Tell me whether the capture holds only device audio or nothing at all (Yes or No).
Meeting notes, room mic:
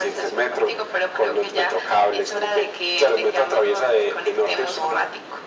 Yes